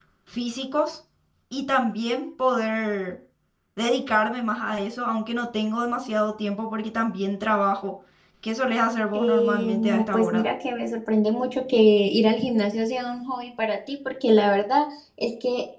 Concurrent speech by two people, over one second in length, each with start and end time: 9.1-10.5

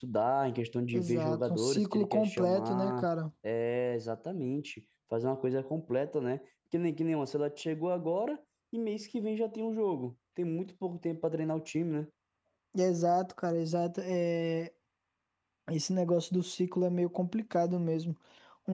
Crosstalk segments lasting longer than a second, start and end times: 0.9-3.1

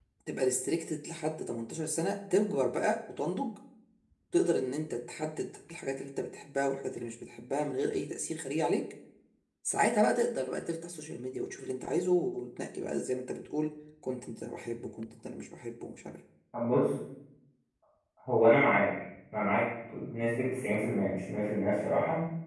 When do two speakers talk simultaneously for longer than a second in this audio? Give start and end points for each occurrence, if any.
none

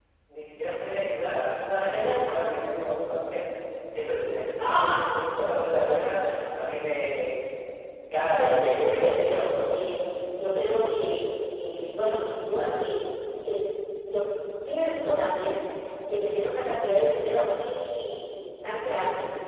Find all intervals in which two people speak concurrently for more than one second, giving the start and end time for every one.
8.4-9.6

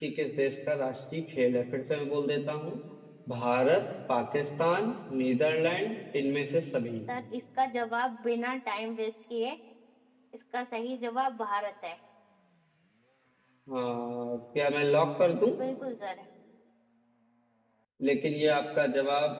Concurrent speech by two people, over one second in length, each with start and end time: none

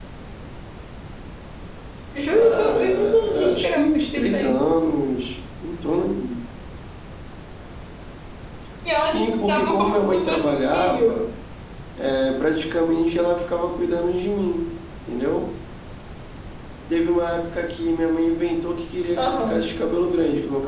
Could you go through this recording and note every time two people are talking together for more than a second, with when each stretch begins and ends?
2.3-4.6, 9.0-11.2

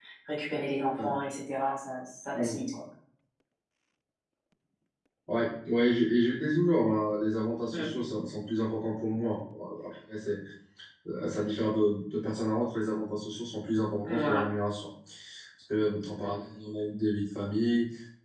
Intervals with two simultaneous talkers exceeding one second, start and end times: none

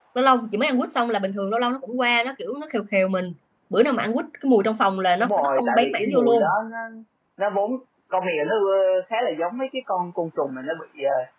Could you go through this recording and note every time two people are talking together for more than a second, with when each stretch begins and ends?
5.2-6.5

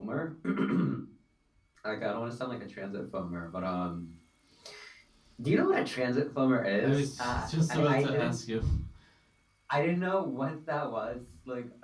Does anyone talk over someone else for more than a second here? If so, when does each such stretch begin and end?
6.8-8.4

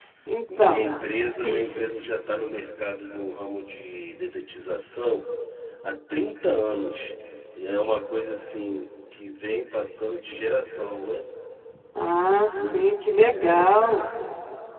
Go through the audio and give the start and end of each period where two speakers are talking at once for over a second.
none

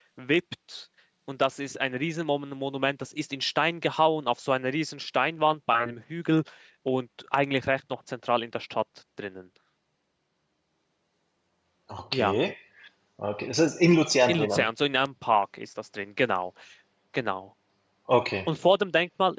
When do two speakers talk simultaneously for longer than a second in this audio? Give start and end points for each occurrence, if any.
none

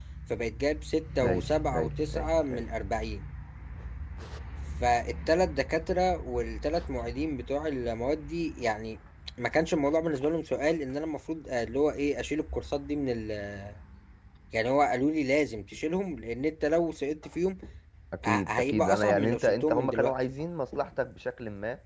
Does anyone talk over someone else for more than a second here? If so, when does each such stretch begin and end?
1.2-2.6, 18.2-20.1

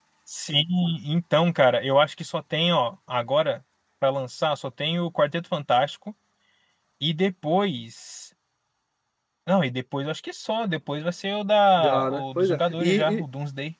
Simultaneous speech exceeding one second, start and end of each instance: 11.8-13.2

